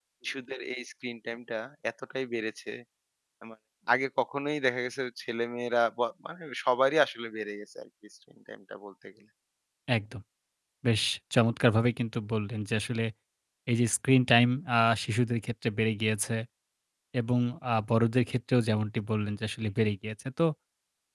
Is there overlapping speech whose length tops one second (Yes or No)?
No